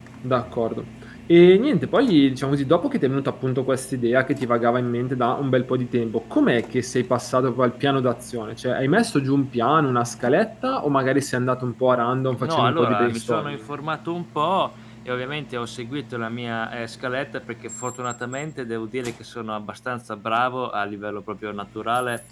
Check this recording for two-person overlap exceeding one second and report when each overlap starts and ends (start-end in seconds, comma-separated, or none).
12.4-13.6